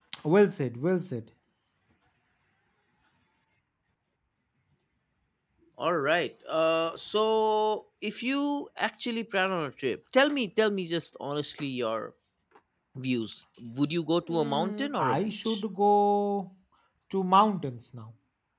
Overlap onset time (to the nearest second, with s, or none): 14 s